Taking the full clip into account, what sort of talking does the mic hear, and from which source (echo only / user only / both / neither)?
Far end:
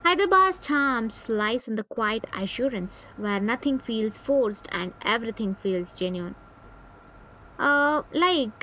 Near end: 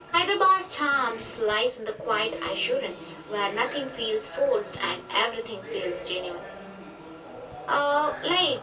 both